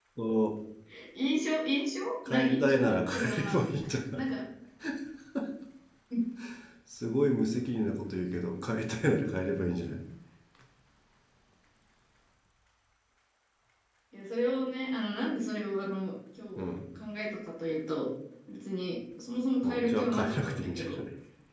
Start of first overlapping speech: 2 s

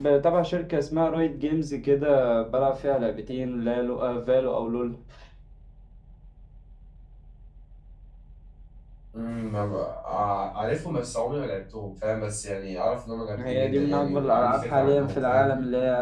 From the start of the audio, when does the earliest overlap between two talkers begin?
13 s

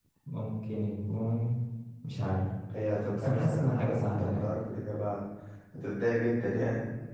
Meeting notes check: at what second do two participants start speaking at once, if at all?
3 s

